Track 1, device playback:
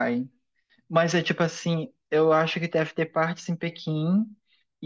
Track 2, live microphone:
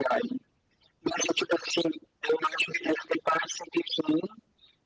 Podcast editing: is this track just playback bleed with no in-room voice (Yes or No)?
Yes